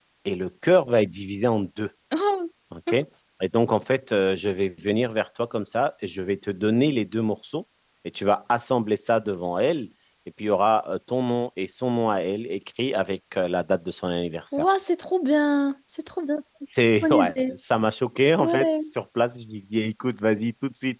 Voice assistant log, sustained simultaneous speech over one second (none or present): none